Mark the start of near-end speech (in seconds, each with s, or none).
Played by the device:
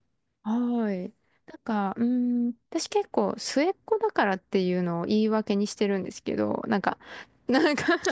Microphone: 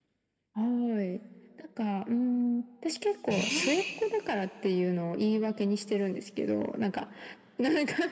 3.3 s